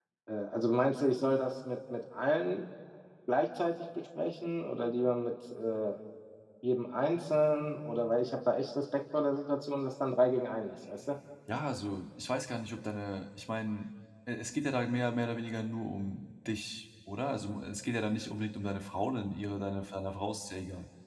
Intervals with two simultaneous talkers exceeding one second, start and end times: none

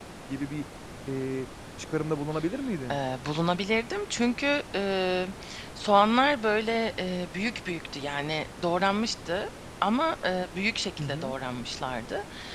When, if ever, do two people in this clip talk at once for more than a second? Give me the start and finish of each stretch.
none

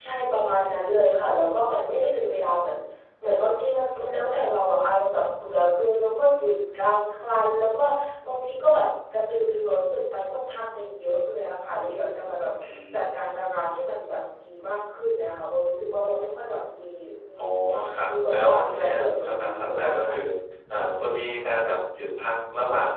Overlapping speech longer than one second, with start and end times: 18.3-20.1

